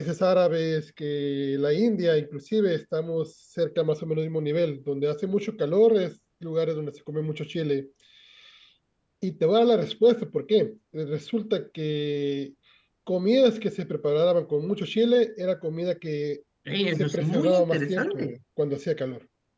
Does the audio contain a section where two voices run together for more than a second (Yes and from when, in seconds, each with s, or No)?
Yes, from 17.0 s